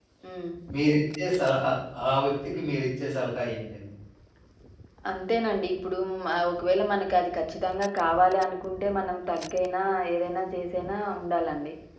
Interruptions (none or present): none